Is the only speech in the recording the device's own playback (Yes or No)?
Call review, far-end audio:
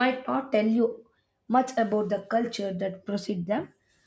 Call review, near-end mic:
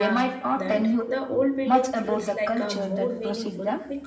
No